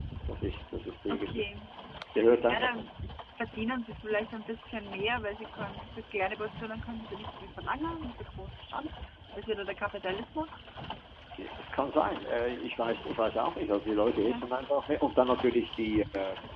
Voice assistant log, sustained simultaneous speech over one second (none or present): none